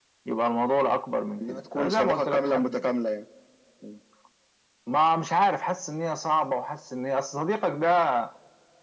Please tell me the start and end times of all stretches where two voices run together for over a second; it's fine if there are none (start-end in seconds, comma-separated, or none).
1.5-2.8